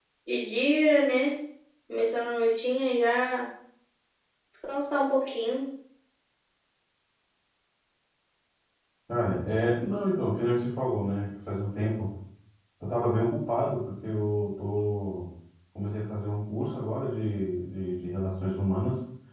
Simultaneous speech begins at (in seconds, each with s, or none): none